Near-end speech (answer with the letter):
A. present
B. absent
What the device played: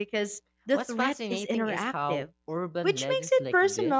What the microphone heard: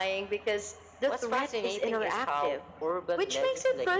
B